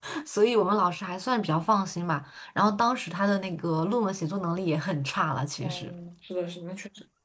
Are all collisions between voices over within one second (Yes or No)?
Yes